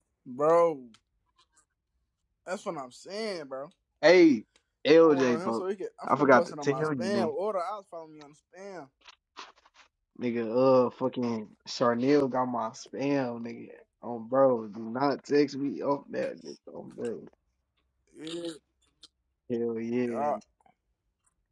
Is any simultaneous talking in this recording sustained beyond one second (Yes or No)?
Yes